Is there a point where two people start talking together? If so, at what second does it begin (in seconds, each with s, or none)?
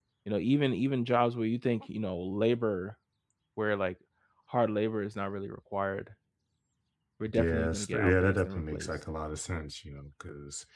7.3 s